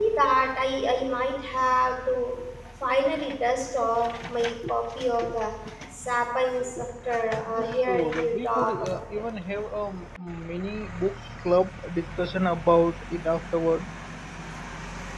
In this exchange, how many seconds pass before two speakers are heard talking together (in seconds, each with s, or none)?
7.5 s